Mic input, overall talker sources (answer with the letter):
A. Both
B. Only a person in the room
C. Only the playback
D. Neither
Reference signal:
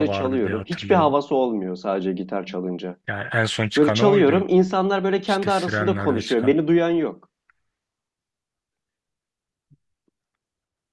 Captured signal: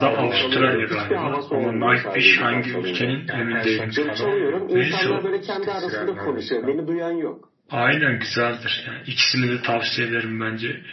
A